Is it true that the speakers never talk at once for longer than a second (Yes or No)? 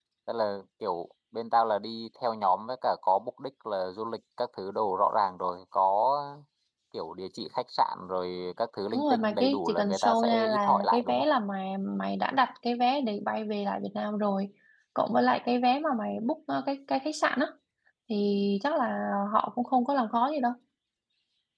No